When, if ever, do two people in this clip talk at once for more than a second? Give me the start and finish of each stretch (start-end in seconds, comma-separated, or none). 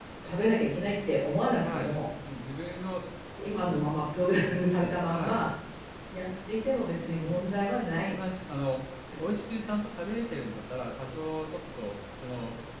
none